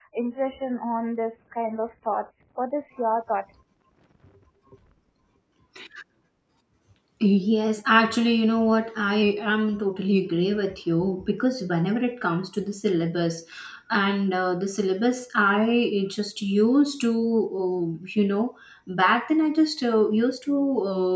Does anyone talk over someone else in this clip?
No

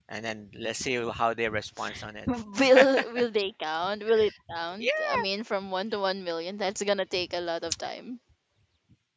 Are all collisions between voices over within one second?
Yes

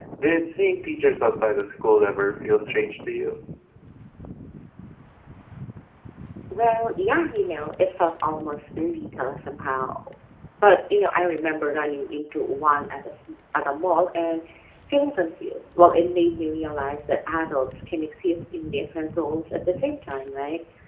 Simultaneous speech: No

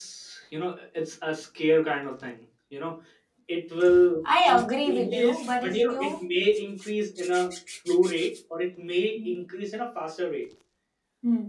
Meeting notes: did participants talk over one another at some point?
Yes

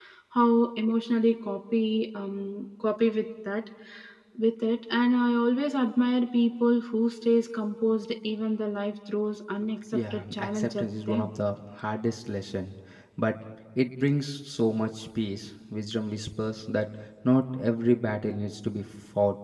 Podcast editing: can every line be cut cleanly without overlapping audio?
No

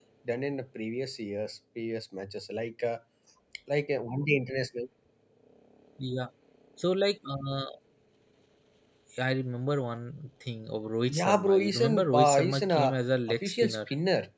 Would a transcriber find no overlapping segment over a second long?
No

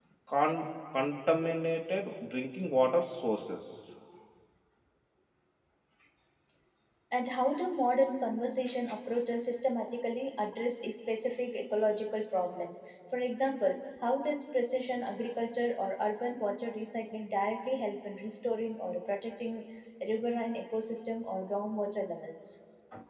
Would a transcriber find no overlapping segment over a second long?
Yes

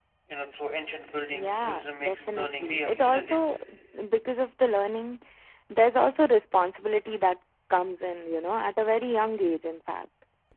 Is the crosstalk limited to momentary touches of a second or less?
No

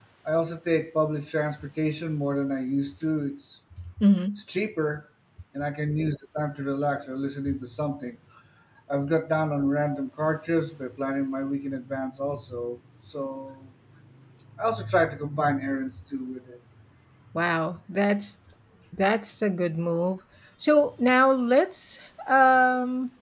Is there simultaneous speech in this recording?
No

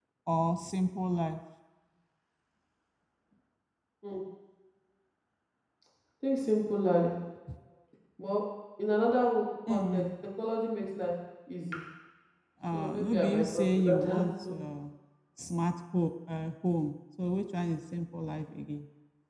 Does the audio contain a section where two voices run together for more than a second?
Yes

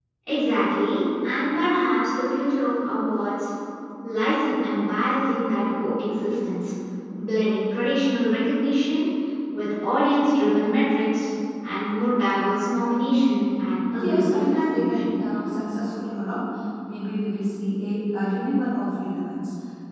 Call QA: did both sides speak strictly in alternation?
No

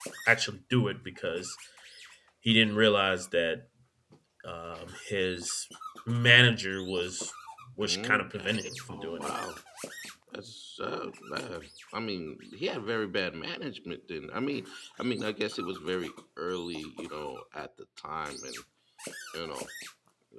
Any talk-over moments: Yes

